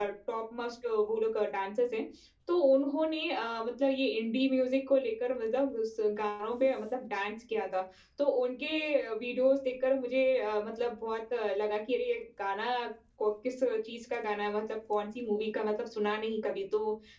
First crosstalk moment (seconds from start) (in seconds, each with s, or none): none